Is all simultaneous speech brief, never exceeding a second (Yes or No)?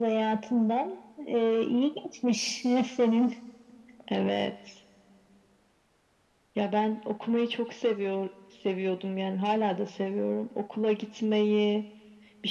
Yes